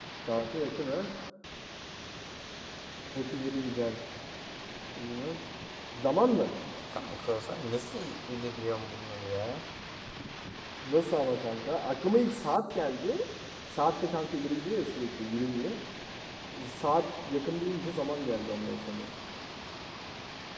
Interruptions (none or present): none